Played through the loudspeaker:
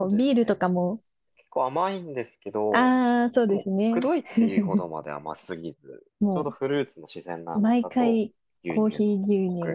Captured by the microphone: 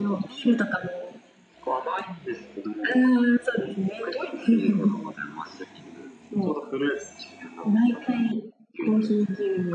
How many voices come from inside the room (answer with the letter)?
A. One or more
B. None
B